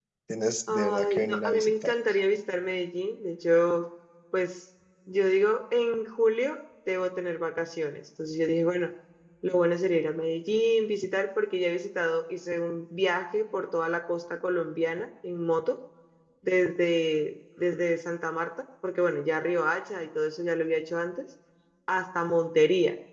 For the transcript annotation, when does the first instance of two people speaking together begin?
0.7 s

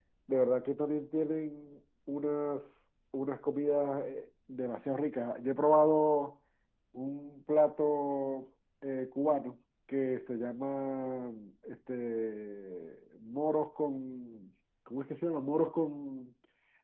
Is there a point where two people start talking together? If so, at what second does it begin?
none

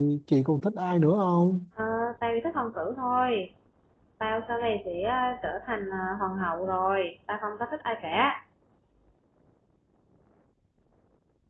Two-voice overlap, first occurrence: none

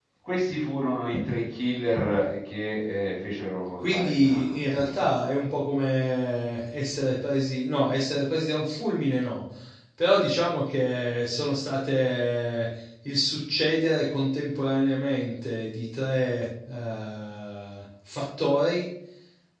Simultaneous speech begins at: 3.8 s

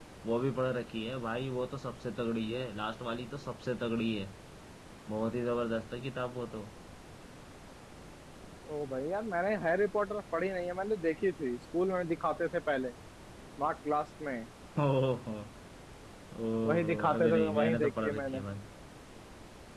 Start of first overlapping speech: 16.6 s

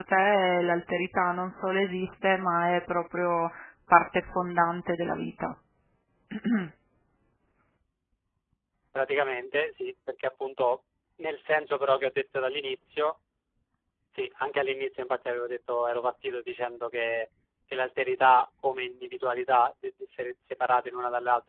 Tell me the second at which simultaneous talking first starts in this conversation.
none

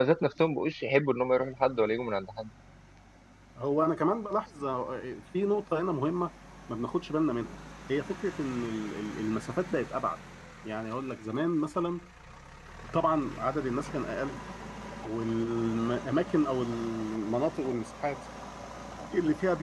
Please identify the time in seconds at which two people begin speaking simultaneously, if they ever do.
none

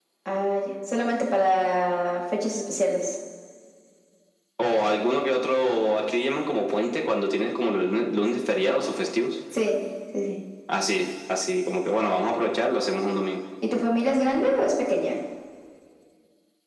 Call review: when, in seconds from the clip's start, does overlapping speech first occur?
none

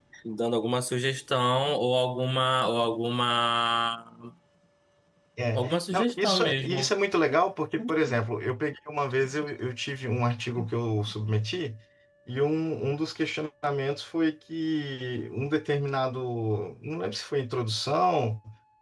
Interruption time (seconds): 5.6 s

